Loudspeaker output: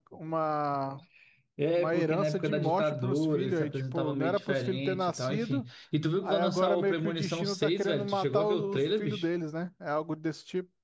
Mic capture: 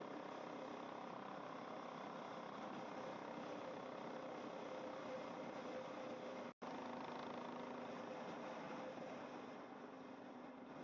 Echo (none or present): none